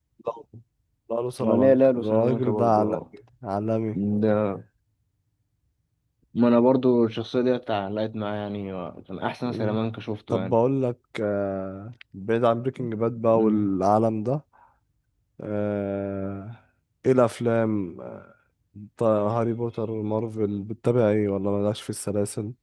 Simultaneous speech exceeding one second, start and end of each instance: 1.4-3.0

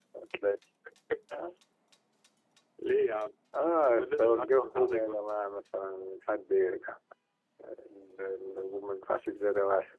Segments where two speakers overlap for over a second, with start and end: 3.8-5.2

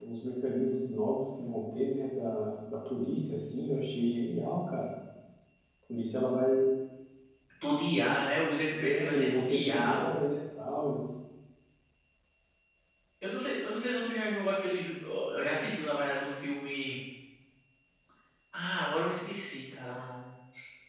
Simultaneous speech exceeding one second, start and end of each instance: 8.7-10.2

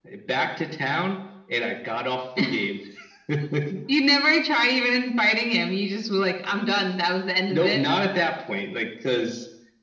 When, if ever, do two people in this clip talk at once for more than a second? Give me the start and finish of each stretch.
none

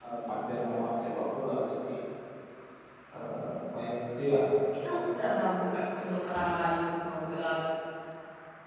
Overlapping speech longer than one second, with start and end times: none

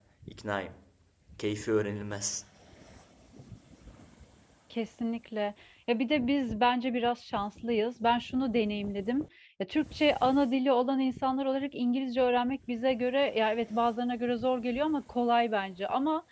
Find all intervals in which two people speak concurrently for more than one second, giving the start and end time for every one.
none

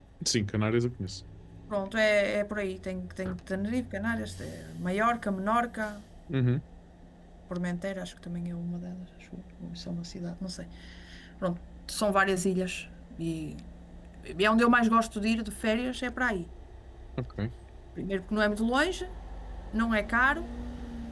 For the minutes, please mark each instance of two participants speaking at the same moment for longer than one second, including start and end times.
none

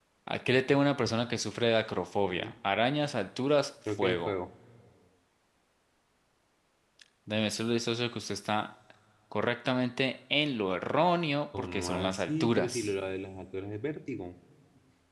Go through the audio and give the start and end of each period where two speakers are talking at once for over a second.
11.6-12.9

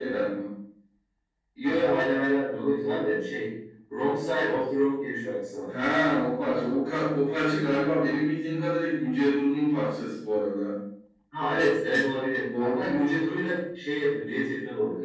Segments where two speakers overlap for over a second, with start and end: none

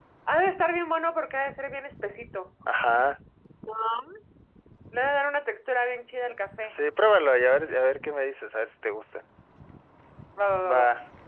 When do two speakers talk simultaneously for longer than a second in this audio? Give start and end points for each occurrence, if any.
none

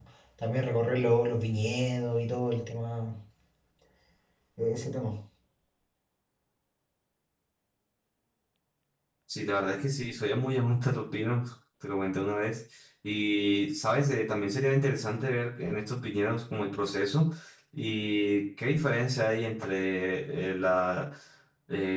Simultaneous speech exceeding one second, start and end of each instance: none

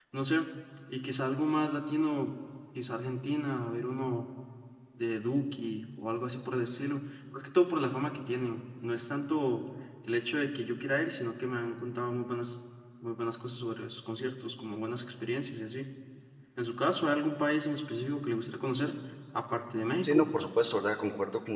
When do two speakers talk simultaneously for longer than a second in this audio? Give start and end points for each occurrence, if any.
none

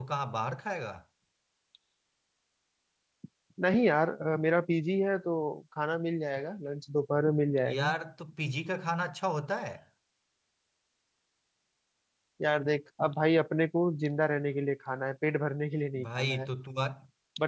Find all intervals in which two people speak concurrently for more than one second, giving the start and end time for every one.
none

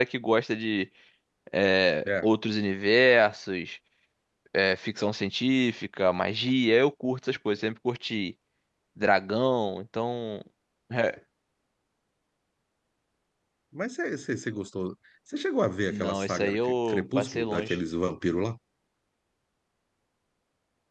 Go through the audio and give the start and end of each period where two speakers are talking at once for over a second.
15.9-17.8

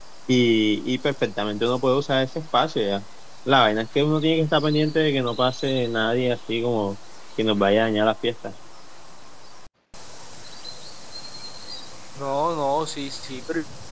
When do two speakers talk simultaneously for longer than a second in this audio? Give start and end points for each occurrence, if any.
none

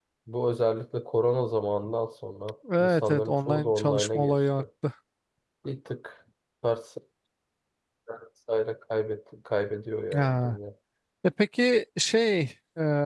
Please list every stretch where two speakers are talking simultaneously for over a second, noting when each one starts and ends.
2.8-4.6

